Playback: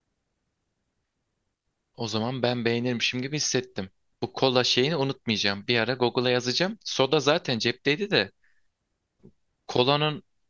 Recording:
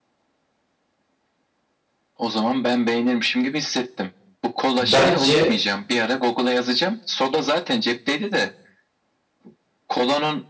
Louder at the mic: user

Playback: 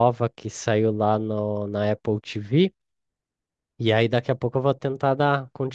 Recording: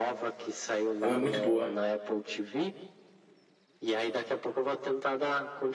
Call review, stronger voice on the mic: user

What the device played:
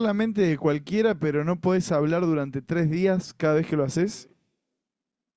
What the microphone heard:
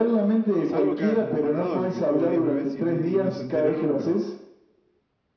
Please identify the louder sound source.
echo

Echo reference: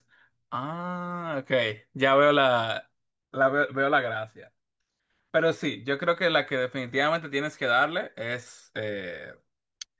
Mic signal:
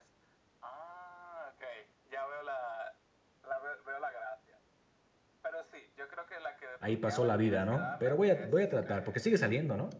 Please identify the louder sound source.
user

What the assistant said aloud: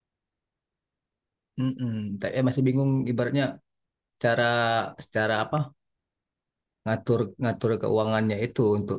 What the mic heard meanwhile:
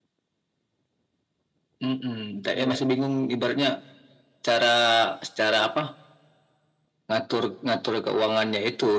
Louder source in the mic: echo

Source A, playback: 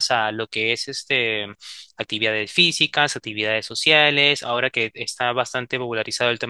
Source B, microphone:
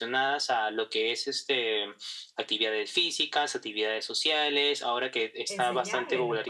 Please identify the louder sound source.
echo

